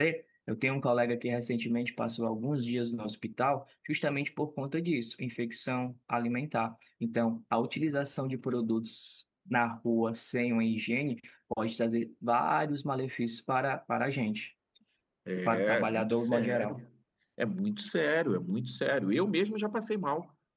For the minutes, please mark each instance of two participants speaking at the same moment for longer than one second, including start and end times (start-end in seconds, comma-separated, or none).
15.4-16.8